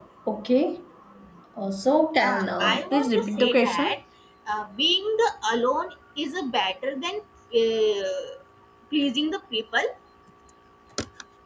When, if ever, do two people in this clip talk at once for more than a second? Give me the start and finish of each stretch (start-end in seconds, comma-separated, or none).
2.2-4.0